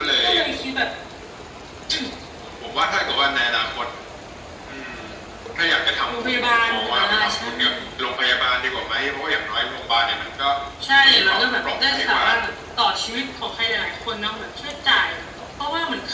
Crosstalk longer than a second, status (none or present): present